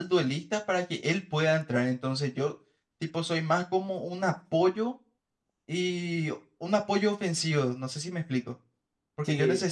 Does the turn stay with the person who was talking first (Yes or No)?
Yes